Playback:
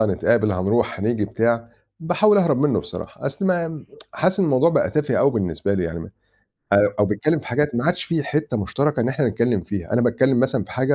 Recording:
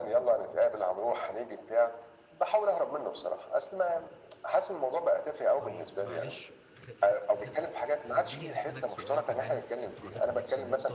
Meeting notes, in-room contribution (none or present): present